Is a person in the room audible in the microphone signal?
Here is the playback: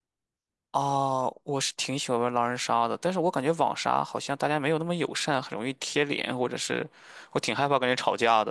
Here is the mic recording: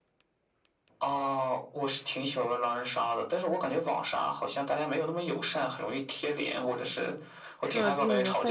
Yes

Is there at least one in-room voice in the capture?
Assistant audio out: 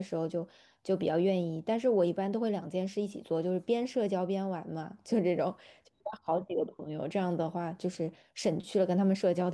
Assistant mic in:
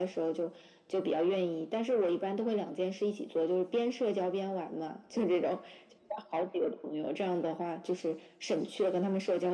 No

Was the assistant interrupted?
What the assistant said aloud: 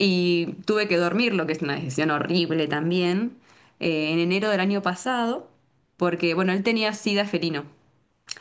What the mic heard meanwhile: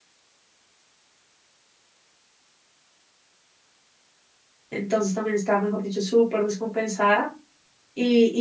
Yes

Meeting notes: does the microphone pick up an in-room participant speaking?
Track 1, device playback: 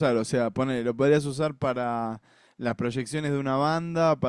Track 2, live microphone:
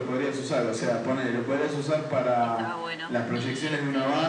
Yes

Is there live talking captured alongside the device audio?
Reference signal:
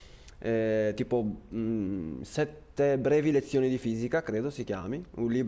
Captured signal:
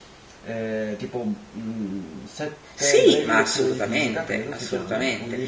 Yes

